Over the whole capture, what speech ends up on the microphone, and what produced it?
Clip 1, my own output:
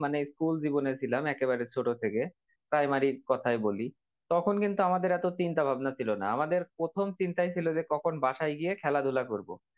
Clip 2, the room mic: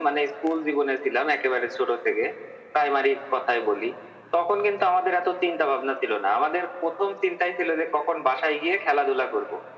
echo only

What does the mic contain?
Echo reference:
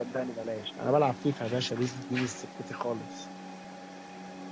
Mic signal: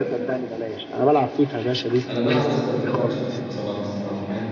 both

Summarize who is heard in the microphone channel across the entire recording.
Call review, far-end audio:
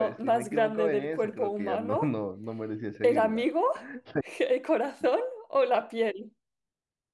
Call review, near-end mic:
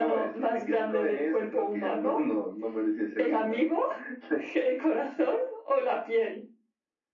echo only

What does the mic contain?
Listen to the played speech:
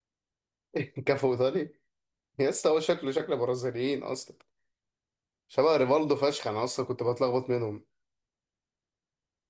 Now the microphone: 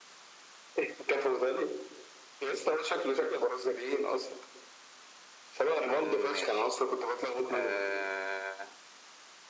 both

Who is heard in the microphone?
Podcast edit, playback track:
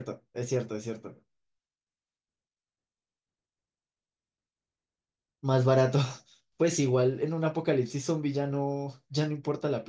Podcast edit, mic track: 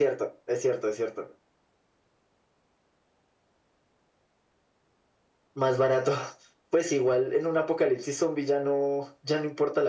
echo only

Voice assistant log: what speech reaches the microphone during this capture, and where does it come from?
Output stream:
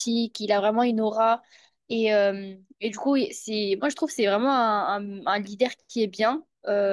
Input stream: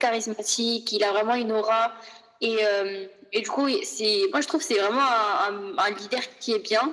echo only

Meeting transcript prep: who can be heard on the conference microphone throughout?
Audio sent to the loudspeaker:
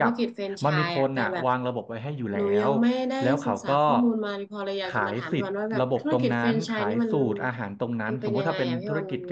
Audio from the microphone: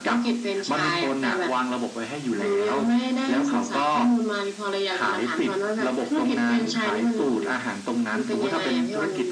echo only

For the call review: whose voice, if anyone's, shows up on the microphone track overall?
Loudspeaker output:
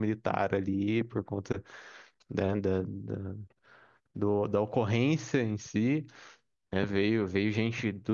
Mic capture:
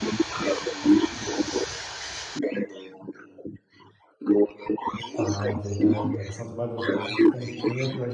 both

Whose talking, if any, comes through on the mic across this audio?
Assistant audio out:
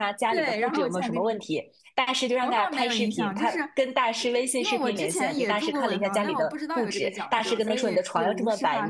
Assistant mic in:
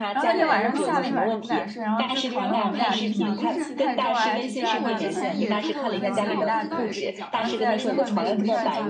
both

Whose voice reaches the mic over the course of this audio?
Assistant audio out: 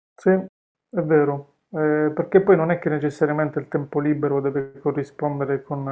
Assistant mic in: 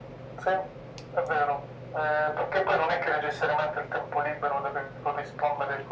echo only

